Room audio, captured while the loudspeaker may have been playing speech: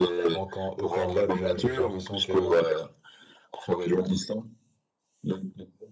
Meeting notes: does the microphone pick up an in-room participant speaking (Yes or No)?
Yes